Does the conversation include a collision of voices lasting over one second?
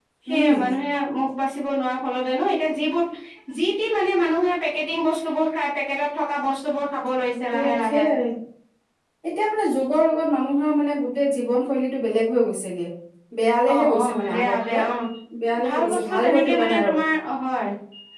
Yes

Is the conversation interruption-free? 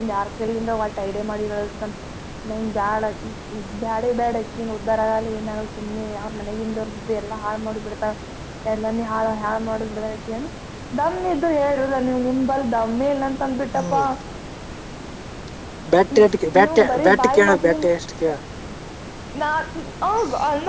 No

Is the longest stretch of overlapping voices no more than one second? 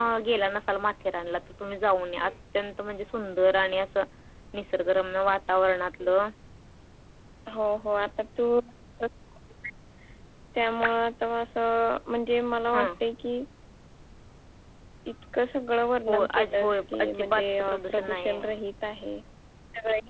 No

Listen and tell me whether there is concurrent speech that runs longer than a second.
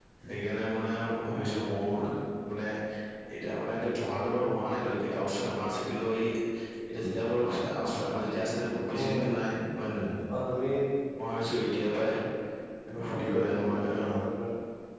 Yes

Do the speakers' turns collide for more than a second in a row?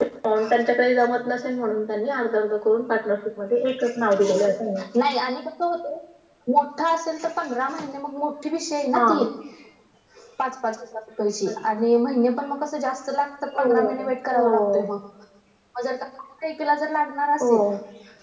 No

